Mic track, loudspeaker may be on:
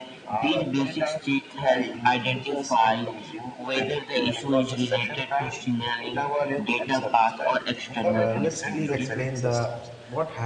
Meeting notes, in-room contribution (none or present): present